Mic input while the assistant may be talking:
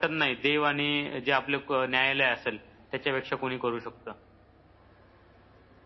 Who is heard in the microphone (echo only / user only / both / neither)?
echo only